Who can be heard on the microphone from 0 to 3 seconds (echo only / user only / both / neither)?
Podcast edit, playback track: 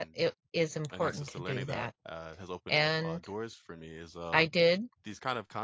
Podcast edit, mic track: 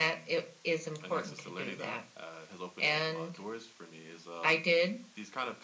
echo only